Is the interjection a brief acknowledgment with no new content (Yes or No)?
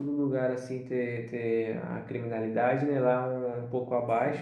Yes